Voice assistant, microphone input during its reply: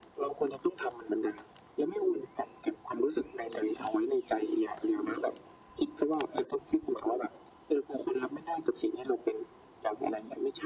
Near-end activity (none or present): none